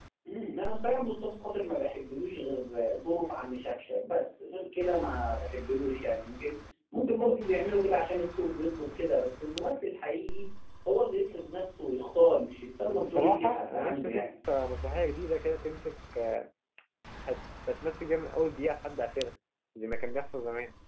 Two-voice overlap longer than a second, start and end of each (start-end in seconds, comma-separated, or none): 12.9-14.3